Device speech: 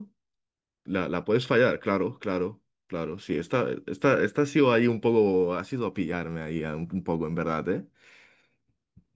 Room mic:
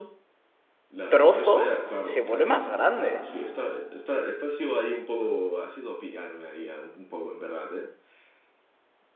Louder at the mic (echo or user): user